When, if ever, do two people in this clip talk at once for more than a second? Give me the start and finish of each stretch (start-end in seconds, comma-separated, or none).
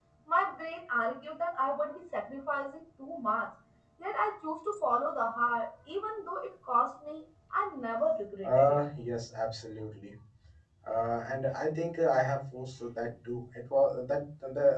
none